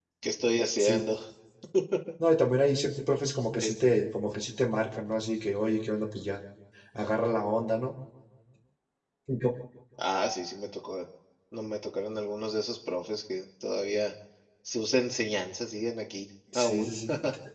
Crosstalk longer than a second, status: none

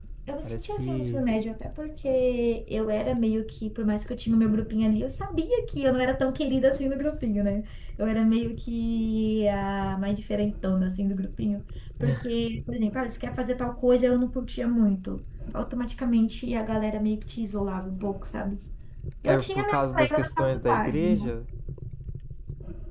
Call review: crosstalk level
present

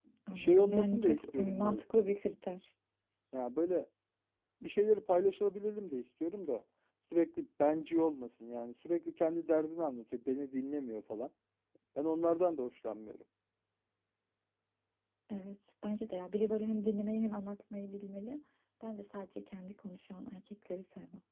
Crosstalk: present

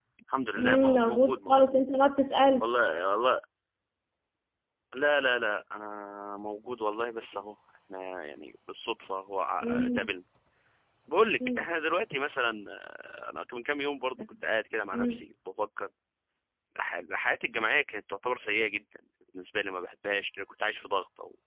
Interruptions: present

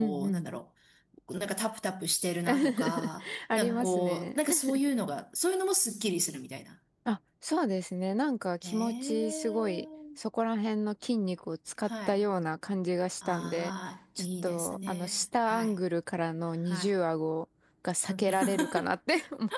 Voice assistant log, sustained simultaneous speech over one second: present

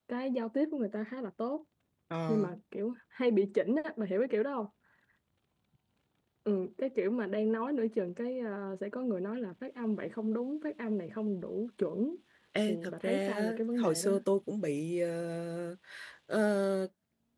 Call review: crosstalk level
present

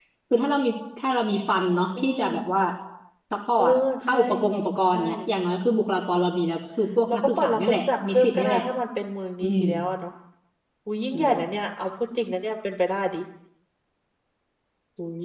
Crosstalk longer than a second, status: present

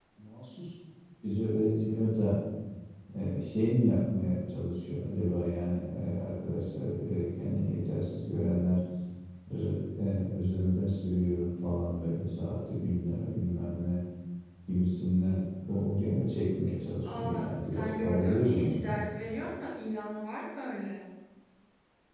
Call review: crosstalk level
present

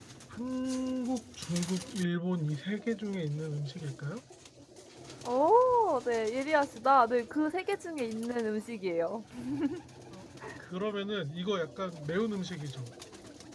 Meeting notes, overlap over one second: none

